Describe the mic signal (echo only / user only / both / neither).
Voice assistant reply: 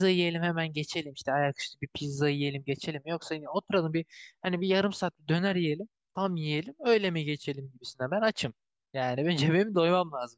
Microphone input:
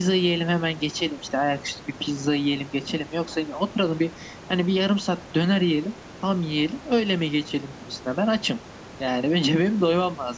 echo only